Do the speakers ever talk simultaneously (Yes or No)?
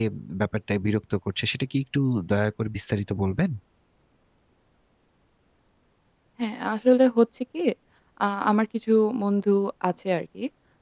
No